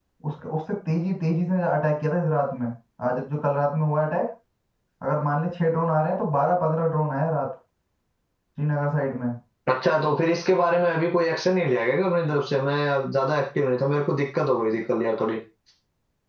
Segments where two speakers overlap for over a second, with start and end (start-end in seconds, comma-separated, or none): none